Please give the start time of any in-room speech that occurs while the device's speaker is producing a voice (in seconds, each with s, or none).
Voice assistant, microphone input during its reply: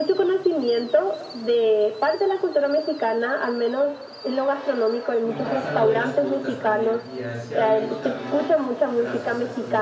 5.2 s